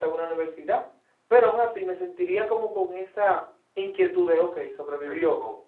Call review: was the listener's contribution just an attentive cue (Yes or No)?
No